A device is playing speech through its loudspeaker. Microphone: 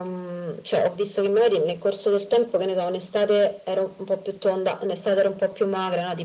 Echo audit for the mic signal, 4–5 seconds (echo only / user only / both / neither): echo only